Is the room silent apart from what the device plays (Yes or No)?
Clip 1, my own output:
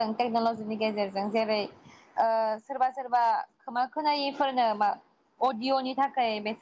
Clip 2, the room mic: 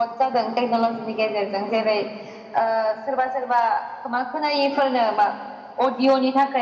Yes